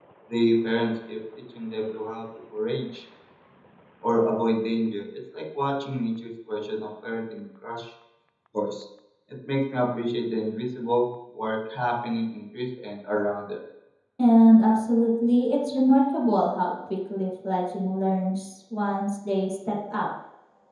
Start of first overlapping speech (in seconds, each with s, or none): none